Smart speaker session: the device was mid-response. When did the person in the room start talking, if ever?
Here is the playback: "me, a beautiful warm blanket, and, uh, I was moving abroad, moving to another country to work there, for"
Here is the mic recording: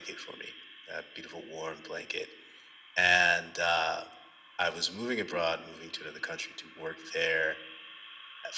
none

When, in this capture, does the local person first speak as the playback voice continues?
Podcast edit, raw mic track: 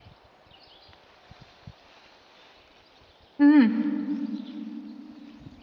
3.4 s

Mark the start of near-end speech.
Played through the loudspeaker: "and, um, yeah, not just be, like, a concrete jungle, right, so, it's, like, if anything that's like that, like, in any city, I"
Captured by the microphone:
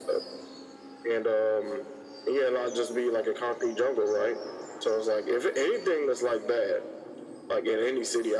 none

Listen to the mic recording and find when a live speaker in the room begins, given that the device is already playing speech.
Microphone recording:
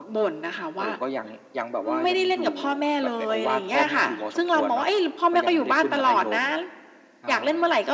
none

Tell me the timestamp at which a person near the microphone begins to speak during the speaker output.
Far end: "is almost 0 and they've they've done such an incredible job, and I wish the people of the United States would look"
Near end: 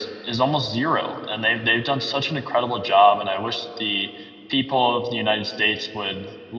none

